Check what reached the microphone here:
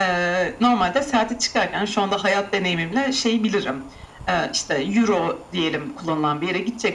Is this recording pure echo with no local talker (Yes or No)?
Yes